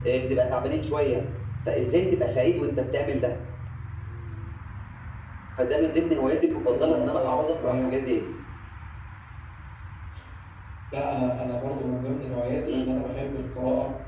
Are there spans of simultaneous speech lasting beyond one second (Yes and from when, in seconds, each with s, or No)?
Yes, from 6.6 s